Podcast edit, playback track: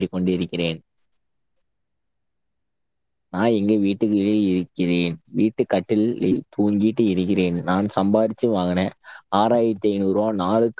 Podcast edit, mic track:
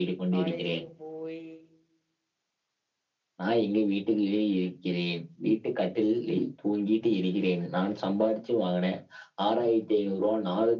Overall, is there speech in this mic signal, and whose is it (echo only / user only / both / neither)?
both